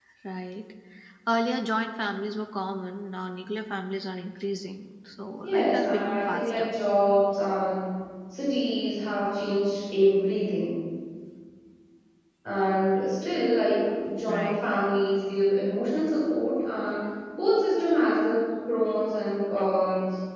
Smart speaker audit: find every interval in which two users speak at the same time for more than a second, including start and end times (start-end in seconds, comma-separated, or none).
5.4-6.7